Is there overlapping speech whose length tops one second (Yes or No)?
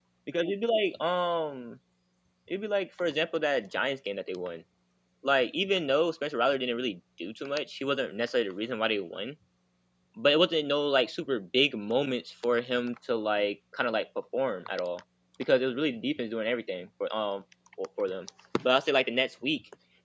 No